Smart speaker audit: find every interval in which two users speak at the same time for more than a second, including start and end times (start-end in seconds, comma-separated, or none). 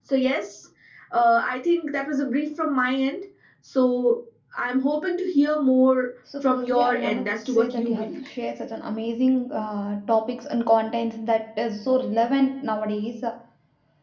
6.4-8.3